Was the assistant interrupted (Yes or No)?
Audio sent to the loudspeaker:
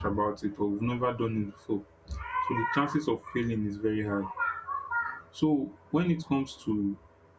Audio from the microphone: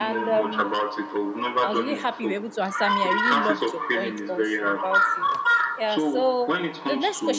Yes